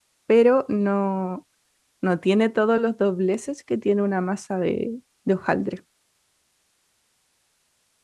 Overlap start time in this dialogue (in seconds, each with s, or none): none